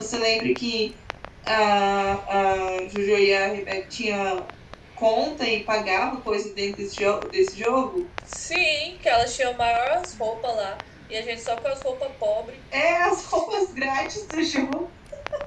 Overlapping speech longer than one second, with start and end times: none

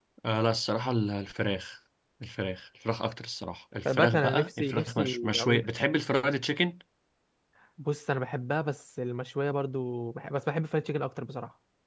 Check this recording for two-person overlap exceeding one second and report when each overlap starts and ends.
3.8-5.6

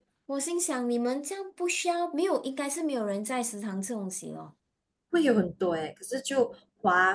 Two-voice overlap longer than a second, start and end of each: none

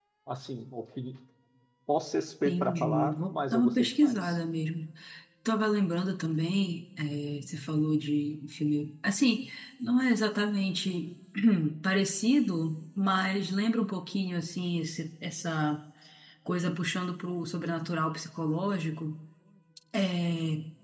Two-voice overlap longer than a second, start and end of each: 2.5-4.3

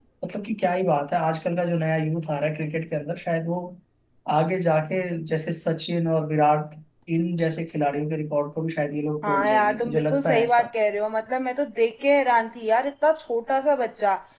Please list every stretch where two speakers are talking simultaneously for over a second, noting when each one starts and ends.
9.2-10.7

